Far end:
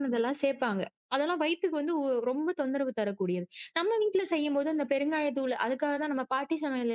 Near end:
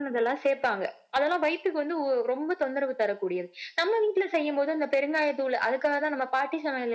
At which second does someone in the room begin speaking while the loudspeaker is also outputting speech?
none

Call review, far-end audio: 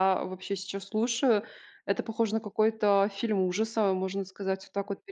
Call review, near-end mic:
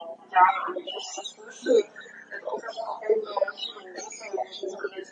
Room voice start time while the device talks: none

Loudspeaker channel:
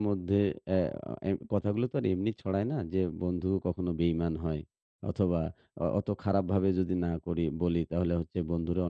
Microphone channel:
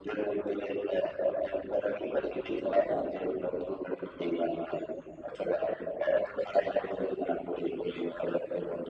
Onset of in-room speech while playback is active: none

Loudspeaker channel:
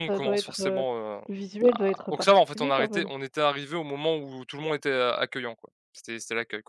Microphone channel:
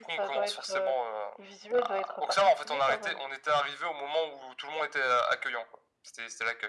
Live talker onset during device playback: none

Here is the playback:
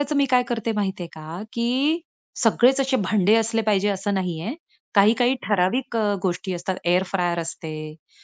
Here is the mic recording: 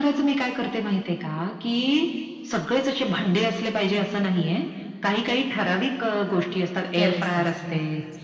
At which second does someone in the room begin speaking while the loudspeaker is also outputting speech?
7.0 s

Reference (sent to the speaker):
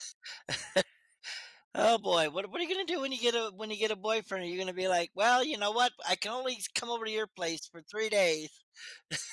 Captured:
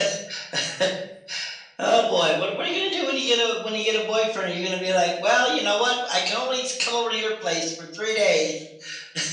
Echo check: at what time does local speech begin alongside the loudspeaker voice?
none

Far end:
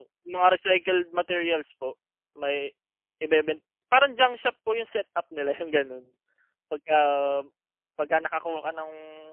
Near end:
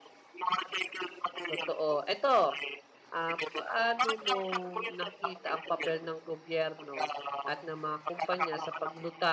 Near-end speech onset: 1.5 s

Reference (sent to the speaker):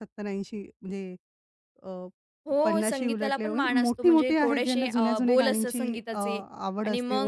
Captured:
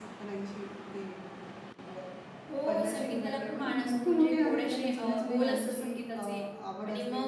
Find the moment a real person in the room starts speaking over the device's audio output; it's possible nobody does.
none

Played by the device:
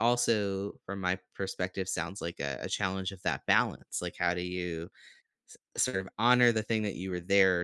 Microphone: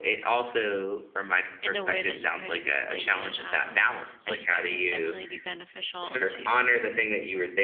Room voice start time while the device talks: 1.6 s

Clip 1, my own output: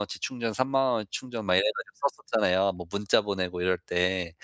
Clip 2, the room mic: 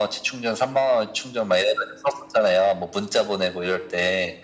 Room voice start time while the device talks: none

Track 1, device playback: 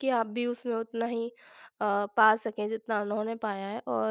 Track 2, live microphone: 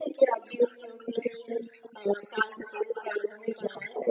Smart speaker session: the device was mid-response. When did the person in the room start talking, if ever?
none

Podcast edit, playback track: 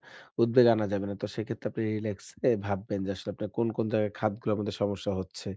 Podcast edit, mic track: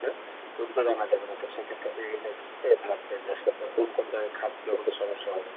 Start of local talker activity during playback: none

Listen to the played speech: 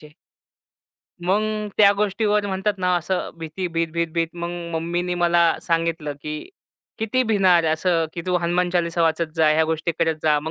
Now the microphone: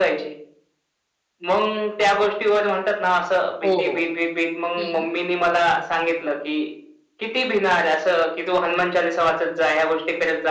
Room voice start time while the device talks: 3.6 s

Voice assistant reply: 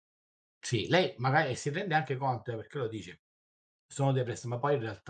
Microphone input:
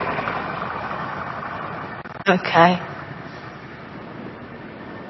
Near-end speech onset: 2.3 s

